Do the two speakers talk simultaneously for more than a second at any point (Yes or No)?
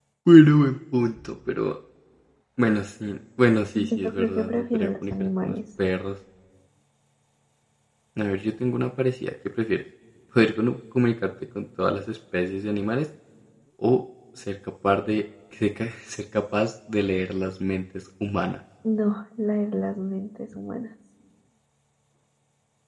Yes